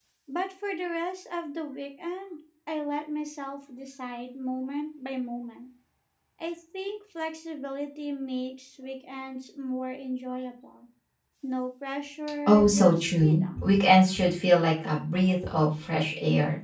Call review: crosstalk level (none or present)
present